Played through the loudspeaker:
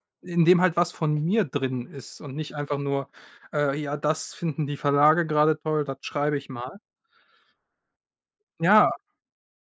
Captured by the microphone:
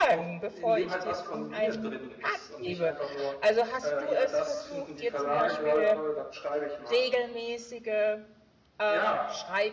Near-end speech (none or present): present